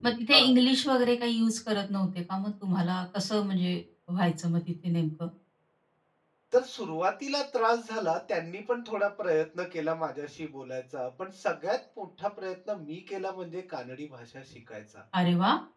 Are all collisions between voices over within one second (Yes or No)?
Yes